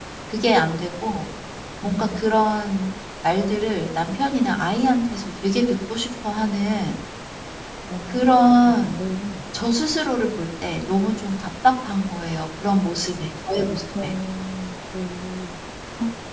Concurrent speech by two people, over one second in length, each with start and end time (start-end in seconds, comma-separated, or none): none